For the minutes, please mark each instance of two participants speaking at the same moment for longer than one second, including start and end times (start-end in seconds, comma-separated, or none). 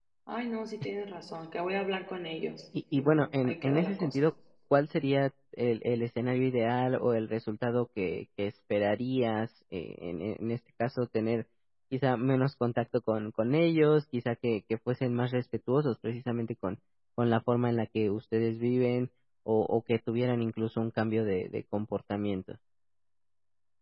2.9-4.2